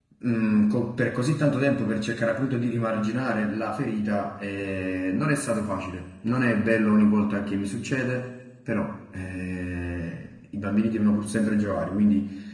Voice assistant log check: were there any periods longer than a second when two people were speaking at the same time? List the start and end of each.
none

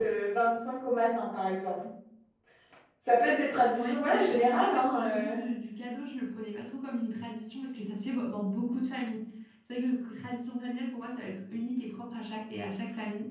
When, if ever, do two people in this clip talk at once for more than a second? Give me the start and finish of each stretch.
3.7-5.4

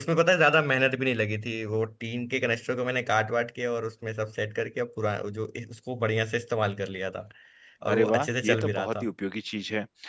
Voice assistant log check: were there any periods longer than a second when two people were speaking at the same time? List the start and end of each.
7.9-9.1

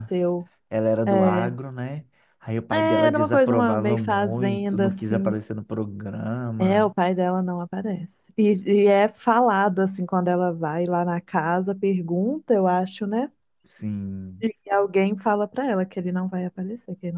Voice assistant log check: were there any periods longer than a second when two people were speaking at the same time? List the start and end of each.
2.7-5.3

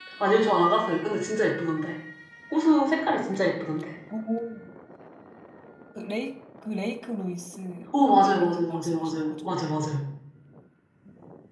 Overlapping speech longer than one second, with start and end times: 8.2-9.5

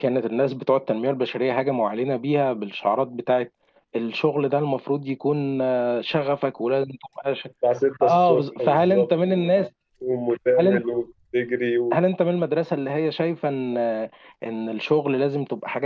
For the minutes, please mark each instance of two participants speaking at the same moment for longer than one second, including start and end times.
8.0-9.4

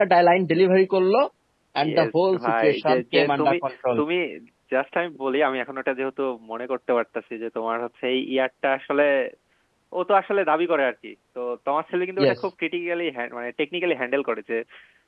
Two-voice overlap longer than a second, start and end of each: 1.8-3.5

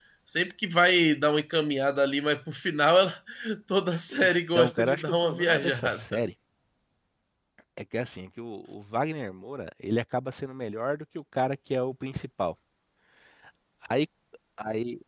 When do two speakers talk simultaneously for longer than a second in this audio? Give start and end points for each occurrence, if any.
4.1-6.2

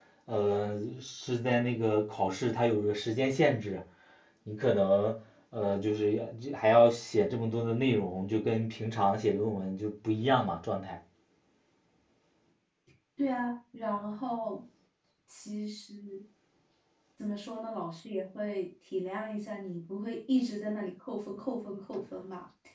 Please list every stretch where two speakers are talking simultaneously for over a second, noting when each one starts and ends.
none

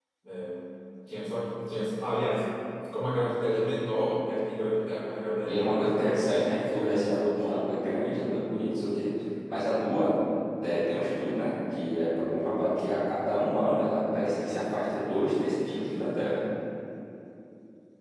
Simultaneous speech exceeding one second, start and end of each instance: 5.5-7.8

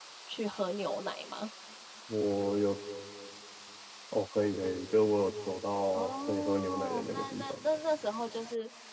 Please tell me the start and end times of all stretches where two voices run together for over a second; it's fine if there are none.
5.9-7.5

